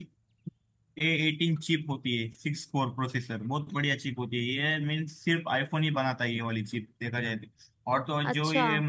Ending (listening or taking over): listening